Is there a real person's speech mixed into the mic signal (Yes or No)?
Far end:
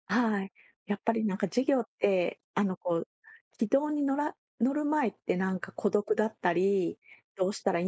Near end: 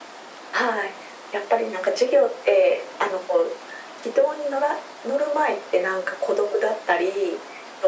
No